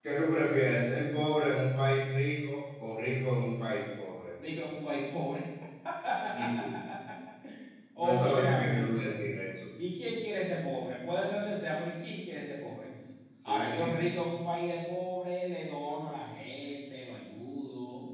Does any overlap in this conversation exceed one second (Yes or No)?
Yes